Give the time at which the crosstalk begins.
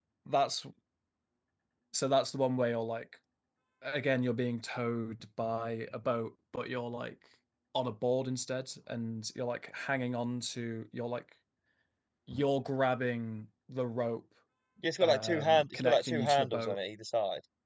15.0 s

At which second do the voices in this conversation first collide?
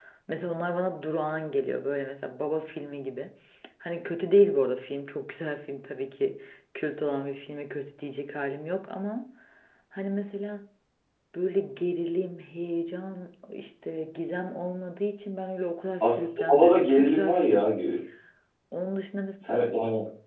16.0 s

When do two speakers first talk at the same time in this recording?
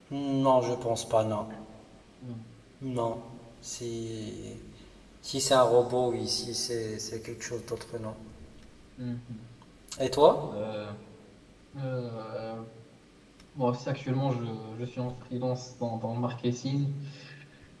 none

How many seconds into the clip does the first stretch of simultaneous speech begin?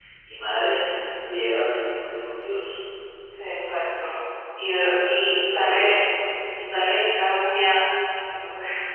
4.8 s

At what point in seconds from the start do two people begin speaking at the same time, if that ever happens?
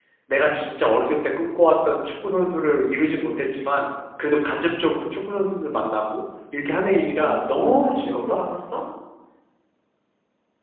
6.8 s

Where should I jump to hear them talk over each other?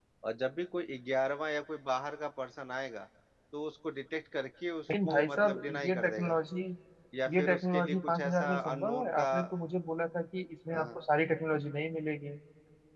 4.9 s

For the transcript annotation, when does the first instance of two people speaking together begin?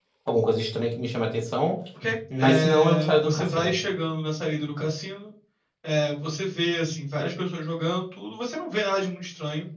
2.4 s

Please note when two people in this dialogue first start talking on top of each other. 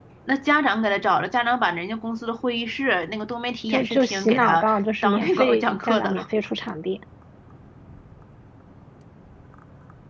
3.7 s

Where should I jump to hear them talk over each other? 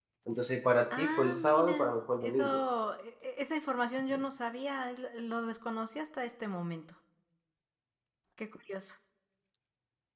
1.0 s

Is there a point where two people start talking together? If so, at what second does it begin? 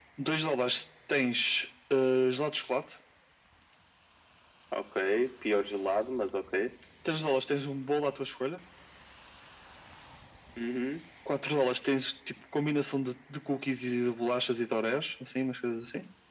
none

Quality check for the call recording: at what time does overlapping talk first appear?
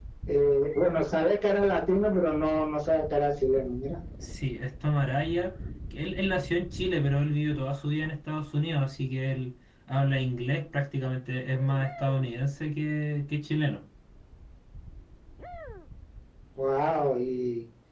none

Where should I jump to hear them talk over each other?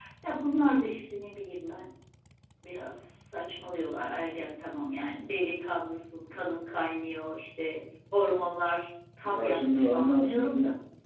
9.2 s

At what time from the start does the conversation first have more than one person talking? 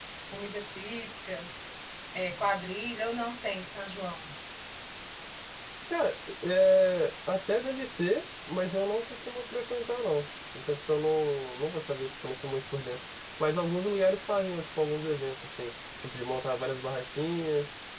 none

